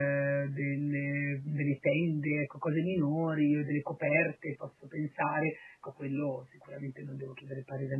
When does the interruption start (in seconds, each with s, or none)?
none